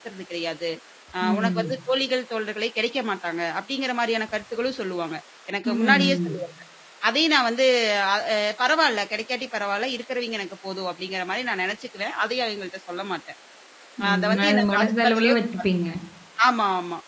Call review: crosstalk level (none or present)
present